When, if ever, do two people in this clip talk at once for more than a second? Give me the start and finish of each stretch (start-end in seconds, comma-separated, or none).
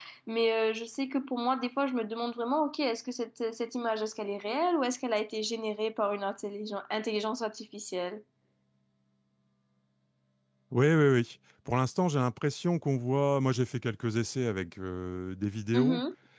none